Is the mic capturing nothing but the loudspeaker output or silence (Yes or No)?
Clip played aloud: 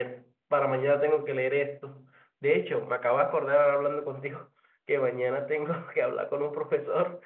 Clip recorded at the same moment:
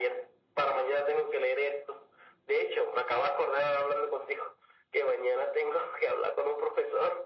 Yes